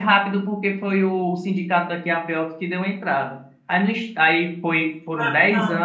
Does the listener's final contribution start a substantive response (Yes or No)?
No